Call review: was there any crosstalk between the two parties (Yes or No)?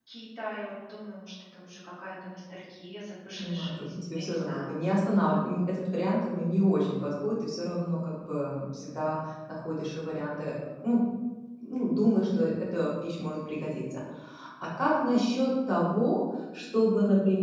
Yes